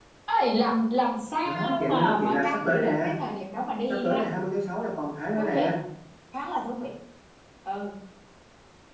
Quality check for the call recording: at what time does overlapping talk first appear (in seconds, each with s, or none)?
1.4 s